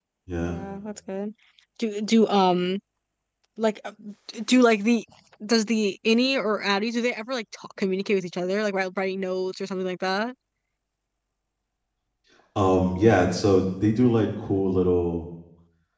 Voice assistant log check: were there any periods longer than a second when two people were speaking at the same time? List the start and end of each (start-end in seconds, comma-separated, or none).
none